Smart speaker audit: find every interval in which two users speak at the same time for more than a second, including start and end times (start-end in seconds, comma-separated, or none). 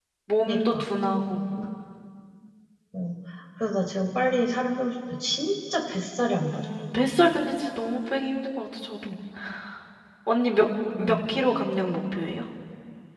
none